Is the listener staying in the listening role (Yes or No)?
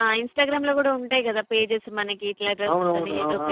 No